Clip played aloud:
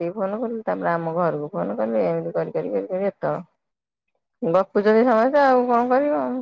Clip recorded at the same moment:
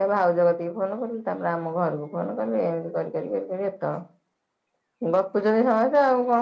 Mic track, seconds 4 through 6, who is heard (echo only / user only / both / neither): echo only